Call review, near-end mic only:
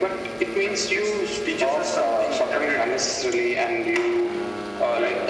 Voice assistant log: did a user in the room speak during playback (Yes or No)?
No